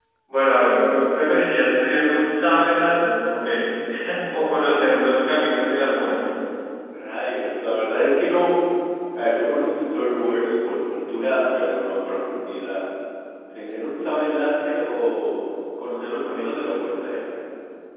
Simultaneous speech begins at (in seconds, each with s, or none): none